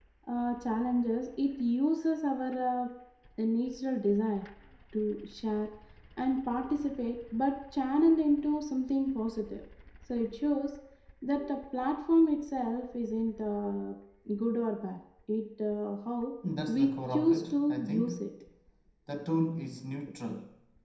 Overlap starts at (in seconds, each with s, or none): 16.7 s